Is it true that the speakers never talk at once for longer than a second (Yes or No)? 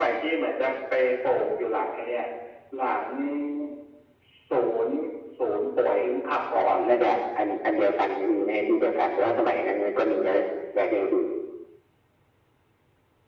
Yes